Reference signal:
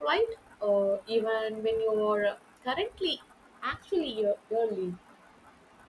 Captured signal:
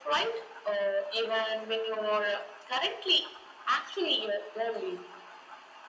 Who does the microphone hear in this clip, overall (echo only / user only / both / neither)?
echo only